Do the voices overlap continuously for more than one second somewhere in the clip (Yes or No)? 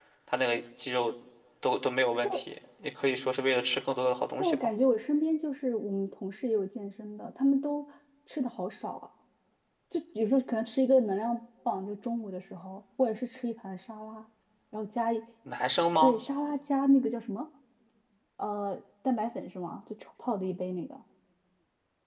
No